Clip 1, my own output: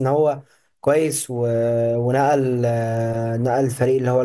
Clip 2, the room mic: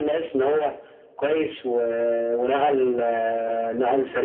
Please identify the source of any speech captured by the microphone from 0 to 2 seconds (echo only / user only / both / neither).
echo only